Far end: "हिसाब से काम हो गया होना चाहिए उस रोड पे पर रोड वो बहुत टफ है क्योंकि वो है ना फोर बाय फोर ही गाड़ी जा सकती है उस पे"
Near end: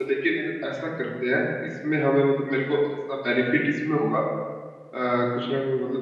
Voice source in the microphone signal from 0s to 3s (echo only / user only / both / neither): user only